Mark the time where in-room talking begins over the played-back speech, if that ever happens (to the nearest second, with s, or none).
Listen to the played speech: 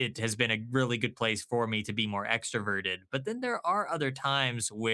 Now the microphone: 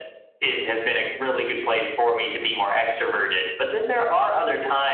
none